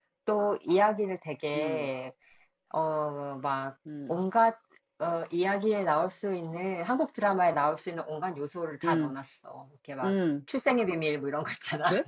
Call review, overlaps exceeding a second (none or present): none